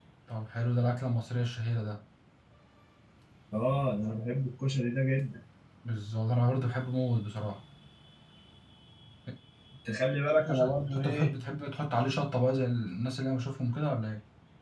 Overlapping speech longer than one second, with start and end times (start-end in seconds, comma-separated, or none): 10.1-11.3